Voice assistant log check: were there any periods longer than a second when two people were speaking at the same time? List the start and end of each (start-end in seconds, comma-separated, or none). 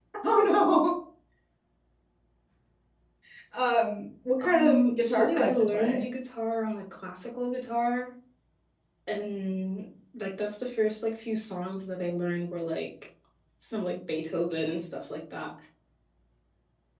4.4-6.0